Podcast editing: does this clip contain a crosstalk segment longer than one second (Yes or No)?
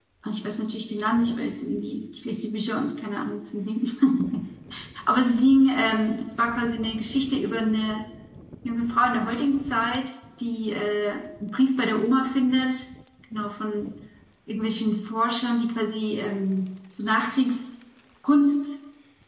No